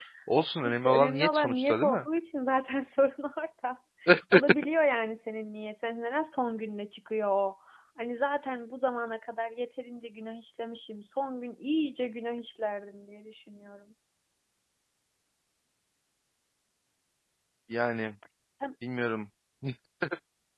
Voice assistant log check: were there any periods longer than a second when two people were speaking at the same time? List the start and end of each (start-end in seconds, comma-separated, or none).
0.6-2.0